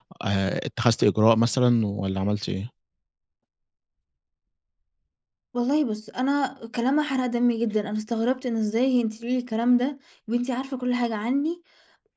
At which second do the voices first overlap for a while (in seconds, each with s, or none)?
none